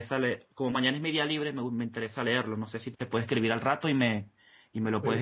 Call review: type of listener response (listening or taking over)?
taking over